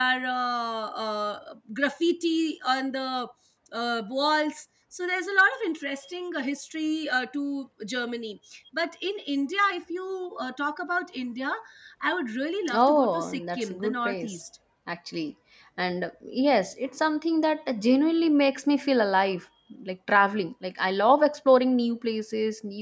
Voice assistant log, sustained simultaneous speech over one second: present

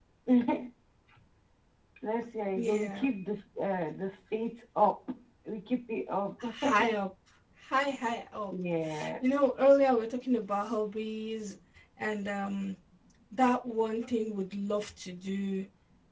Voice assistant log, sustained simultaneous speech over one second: none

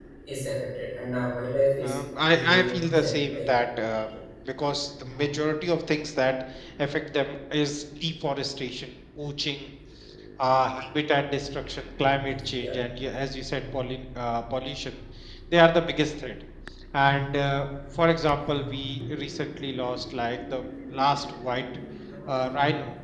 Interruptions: present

